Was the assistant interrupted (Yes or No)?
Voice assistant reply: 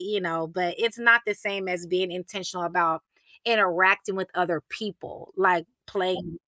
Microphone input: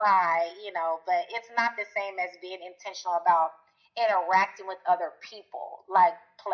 No